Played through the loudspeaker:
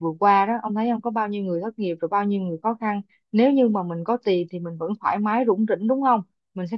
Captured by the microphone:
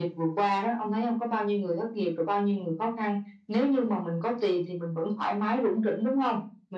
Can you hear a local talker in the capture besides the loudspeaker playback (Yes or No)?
No